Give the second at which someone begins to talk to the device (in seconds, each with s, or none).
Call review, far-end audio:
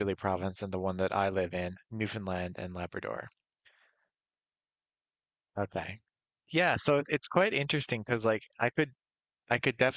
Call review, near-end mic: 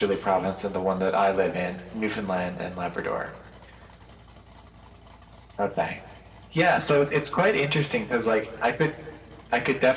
none